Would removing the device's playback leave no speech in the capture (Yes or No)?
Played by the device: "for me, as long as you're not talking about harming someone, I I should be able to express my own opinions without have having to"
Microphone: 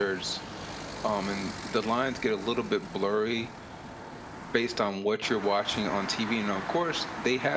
No